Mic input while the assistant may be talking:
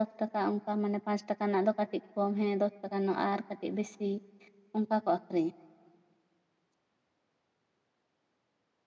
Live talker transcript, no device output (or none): none